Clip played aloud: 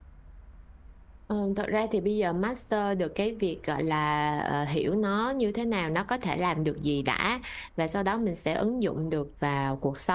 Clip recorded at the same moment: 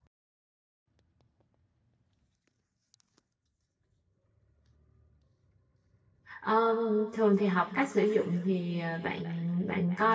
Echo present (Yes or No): No